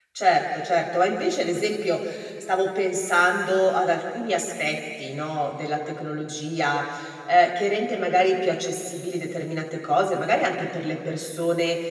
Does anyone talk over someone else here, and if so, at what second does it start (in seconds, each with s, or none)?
none